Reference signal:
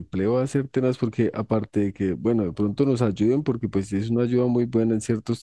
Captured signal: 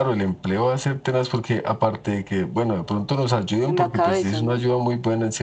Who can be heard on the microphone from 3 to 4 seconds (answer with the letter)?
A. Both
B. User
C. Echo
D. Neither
A